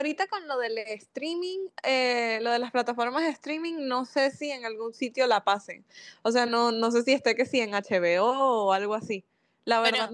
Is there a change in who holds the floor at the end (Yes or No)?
No